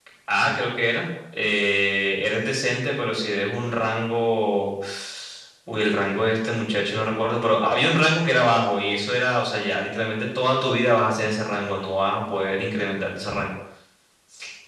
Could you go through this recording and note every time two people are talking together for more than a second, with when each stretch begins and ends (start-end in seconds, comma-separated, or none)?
none